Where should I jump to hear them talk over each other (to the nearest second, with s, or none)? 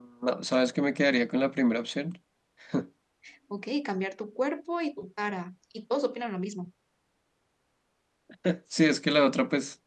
none